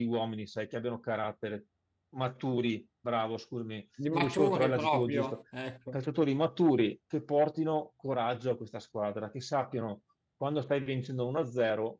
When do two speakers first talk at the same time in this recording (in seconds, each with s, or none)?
4.0 s